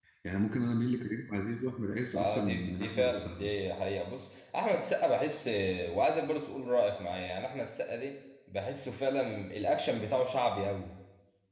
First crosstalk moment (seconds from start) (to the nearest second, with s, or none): 2 s